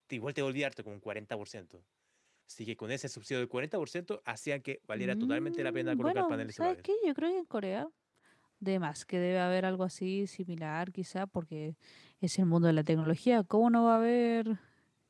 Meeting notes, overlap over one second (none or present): present